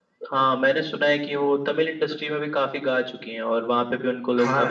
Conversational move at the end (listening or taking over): taking over